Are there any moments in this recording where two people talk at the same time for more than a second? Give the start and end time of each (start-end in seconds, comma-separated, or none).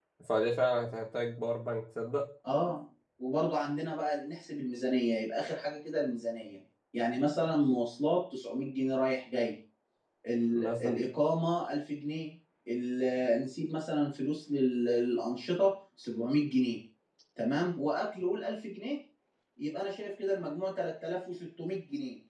none